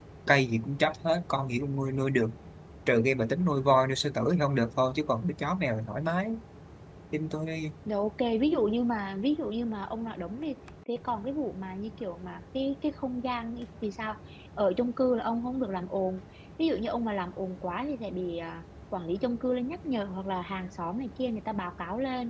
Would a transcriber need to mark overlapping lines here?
No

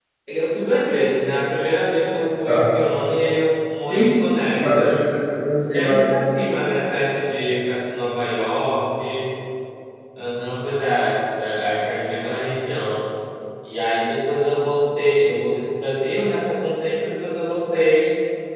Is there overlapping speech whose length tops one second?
No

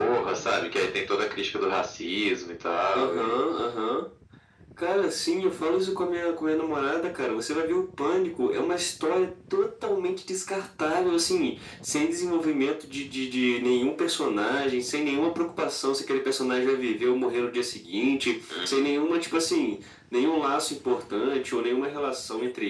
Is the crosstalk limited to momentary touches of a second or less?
Yes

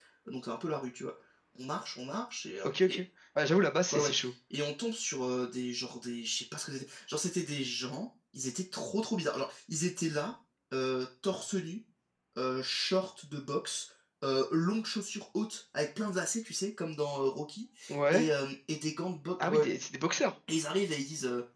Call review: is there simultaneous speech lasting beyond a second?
No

